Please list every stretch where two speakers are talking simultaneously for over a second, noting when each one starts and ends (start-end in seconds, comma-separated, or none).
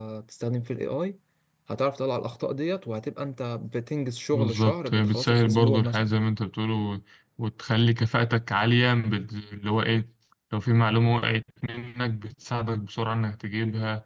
4.3-6.1